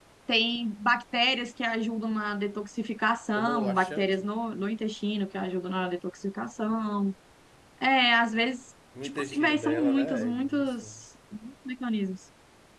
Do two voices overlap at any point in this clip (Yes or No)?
Yes